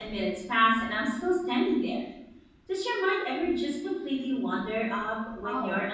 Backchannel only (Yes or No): No